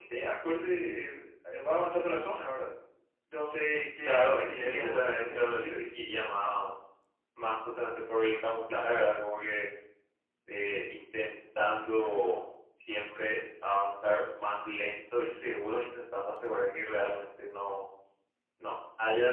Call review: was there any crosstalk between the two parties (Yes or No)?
Yes